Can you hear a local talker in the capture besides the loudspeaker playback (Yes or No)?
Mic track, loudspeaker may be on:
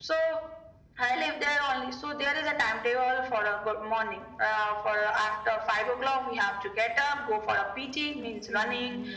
Yes